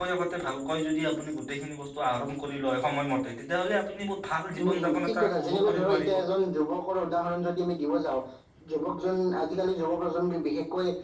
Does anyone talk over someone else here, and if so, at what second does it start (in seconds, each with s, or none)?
4.6 s